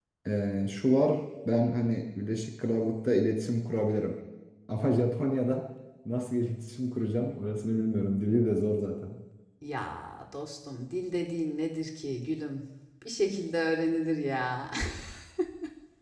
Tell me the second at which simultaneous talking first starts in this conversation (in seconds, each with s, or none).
none